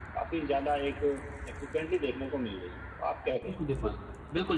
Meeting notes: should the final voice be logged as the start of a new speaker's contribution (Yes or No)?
Yes